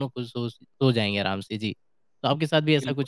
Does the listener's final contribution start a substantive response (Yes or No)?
Yes